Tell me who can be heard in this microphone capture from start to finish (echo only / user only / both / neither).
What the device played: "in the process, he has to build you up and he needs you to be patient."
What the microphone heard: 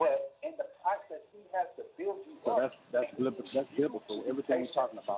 both